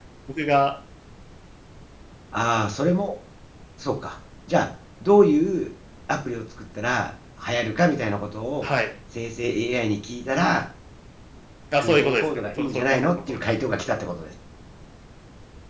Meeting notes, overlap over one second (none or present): present